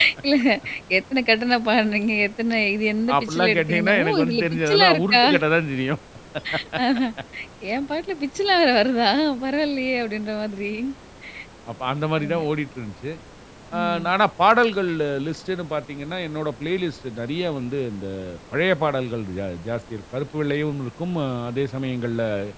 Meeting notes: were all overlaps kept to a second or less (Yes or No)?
No